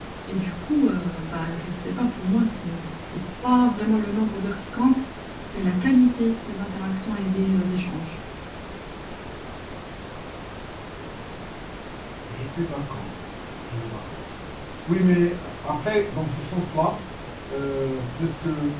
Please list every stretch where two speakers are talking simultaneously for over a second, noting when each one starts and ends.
none

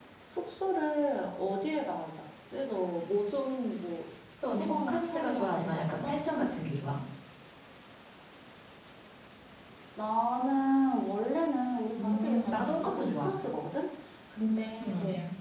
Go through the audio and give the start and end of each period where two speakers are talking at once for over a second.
4.6-6.2, 12.0-13.3

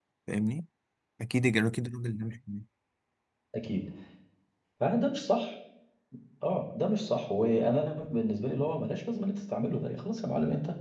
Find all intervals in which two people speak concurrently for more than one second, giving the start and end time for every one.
none

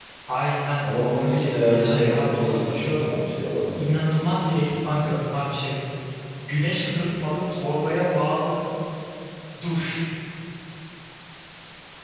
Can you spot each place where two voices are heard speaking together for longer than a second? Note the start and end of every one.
0.8-3.1

